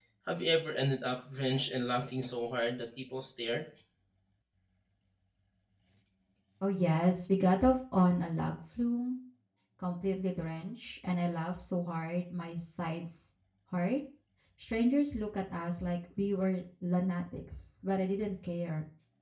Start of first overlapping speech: none

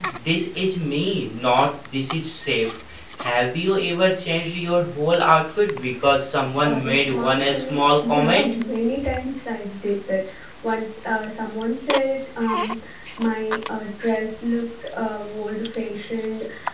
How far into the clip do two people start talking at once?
6.6 s

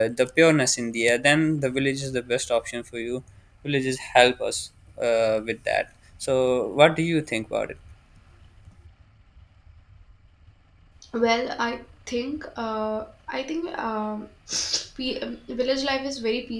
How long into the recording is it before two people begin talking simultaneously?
none

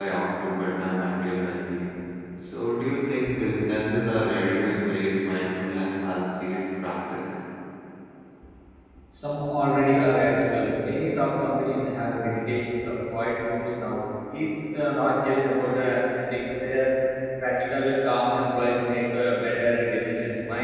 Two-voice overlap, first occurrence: none

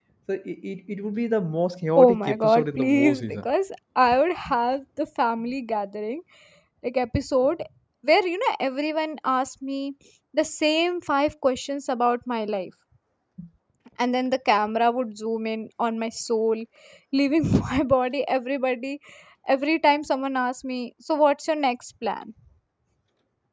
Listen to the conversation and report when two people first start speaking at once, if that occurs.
2.0 s

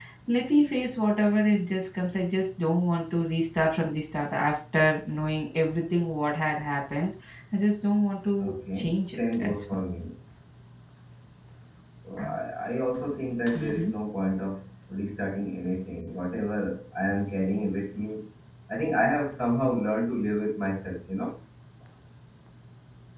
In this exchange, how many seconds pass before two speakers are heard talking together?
8.4 s

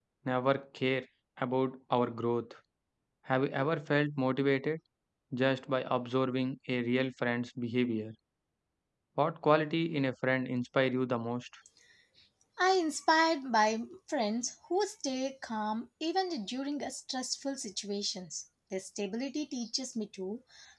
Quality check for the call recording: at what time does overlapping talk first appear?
none

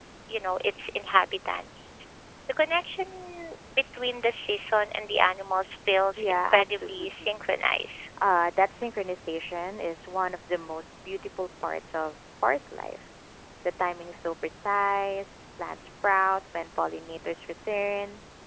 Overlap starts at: 6.2 s

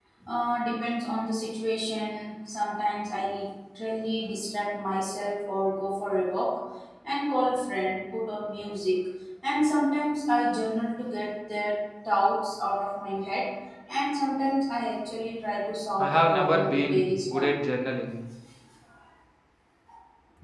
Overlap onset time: 16.0 s

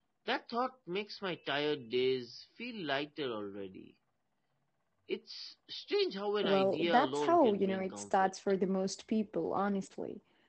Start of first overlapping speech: 6.4 s

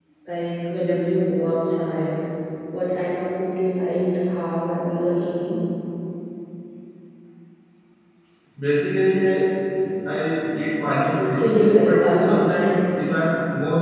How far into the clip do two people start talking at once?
11.3 s

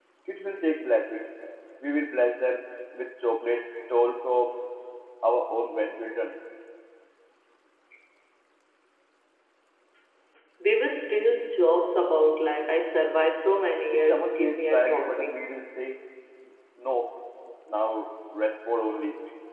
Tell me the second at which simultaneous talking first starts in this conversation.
13.9 s

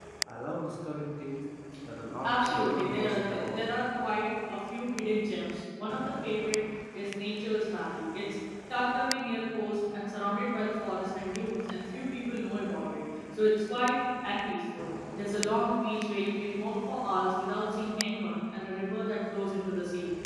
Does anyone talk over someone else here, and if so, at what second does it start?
2.2 s

